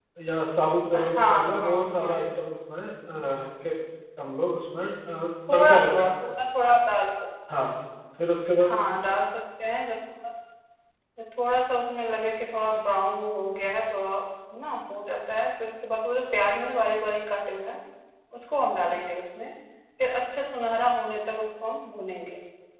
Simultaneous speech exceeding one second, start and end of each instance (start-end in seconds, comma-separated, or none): 0.9-2.2